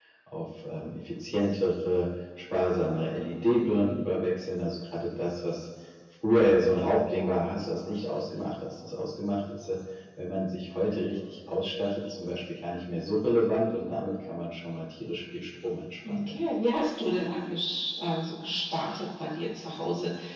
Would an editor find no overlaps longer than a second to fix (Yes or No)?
Yes